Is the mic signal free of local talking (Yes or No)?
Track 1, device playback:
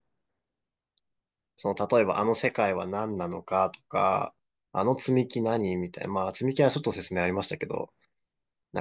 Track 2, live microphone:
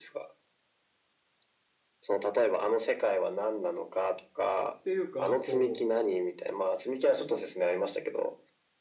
No